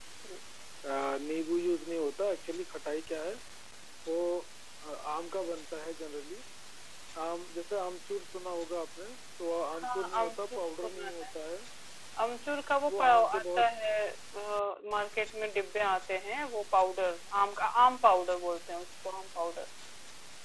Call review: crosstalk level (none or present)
present